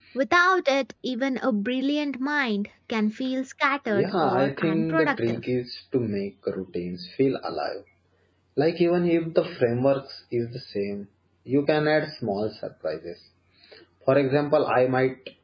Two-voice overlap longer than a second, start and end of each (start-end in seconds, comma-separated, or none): 3.9-5.4